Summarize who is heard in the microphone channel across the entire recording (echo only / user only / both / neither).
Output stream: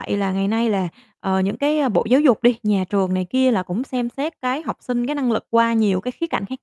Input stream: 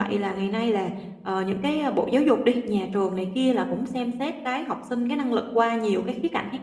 echo only